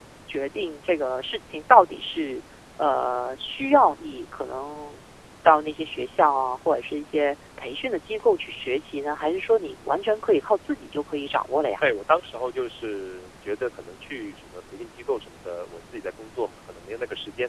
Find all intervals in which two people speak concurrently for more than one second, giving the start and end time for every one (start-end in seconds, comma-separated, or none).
none